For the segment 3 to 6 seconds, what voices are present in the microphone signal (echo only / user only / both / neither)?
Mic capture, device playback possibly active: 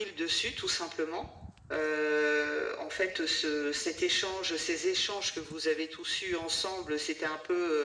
echo only